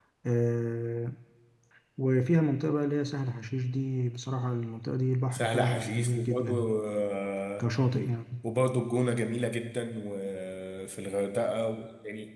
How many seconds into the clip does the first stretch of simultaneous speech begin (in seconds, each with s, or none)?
5.3 s